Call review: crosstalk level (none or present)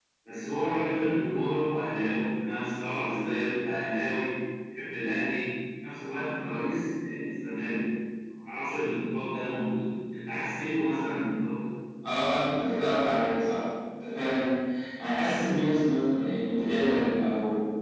none